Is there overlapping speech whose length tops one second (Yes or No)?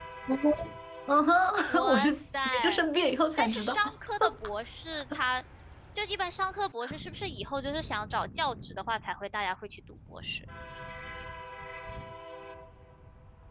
No